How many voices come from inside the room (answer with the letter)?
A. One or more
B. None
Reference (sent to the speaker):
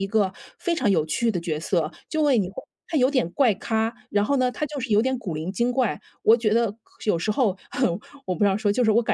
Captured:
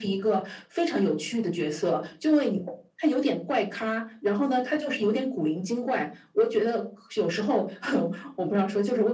B